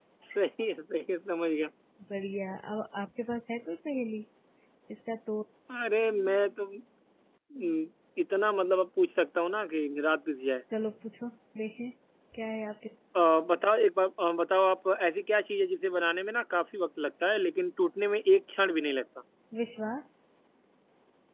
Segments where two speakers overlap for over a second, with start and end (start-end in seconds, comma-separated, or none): none